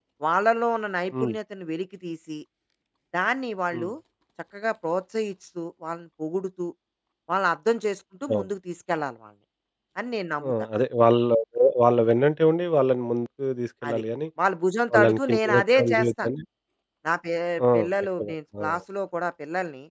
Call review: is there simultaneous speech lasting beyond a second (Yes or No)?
Yes